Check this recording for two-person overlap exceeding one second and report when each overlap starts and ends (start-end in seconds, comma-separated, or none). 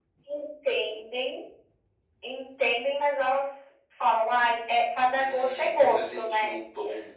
5.2-6.6